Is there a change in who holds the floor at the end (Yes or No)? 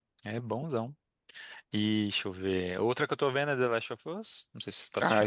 Yes